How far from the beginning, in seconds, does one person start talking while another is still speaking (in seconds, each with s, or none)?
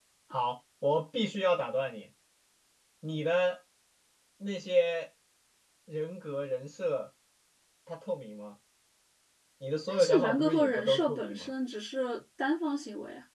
9.9 s